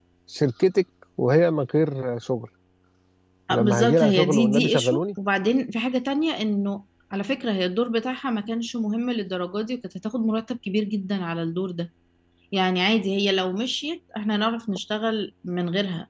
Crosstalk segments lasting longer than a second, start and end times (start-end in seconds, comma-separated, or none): 3.5-5.0